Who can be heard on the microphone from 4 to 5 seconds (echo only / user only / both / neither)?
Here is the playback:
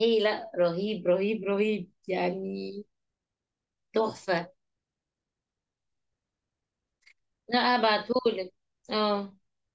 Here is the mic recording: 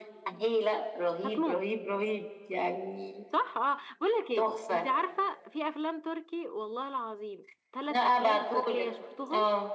both